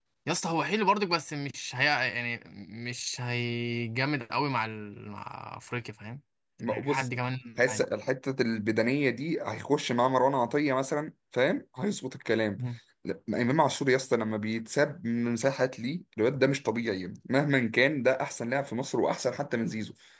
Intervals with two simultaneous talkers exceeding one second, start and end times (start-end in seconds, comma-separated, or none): none